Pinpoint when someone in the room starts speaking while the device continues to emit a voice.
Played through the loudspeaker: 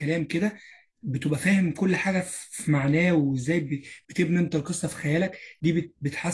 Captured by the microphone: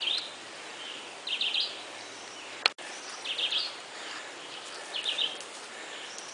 none

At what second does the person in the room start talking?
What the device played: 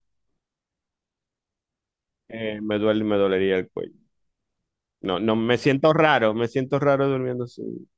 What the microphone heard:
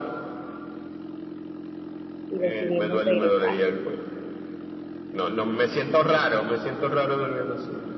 2.3 s

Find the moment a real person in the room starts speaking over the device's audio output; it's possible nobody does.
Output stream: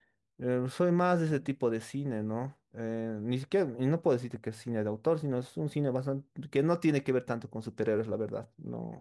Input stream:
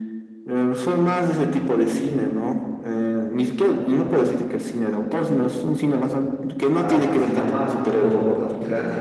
6.7 s

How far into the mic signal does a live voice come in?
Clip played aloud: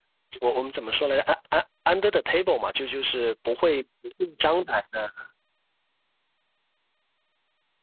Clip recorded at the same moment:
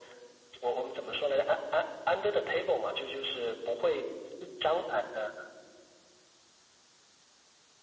none

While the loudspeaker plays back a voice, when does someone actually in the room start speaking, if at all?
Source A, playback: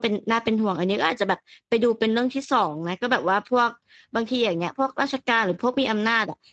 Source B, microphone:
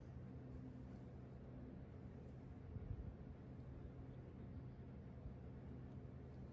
none

